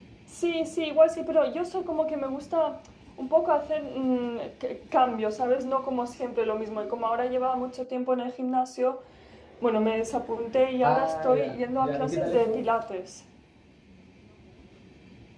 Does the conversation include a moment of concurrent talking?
Yes, from 10.8 s

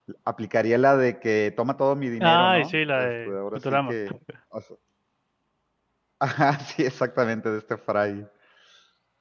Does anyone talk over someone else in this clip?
Yes, from 2.2 s

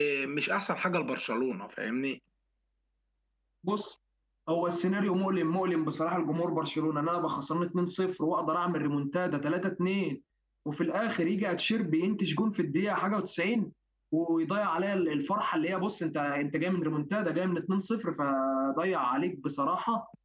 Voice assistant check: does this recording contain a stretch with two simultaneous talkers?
No

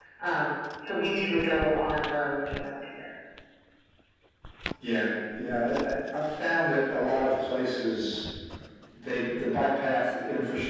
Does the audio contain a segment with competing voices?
No

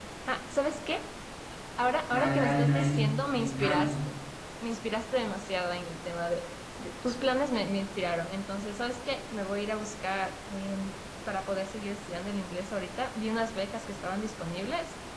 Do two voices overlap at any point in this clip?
Yes, from 2.1 s

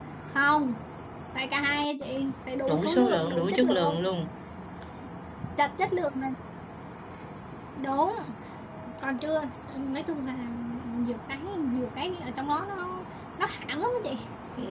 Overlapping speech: Yes, from 2.7 s

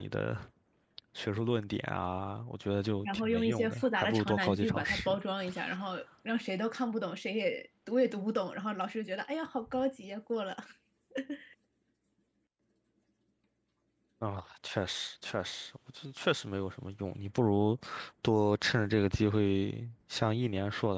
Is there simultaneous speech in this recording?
Yes, from 3.0 s

